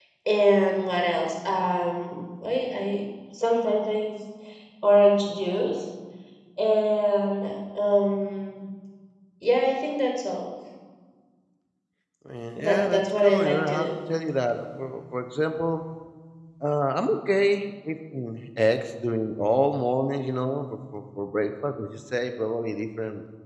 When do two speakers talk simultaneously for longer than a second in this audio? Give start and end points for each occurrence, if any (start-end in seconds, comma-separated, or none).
12.6-13.9